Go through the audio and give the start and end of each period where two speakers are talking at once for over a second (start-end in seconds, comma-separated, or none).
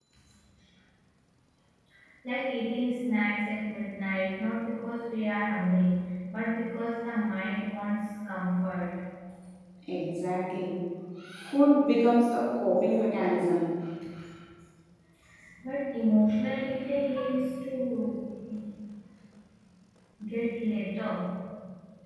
none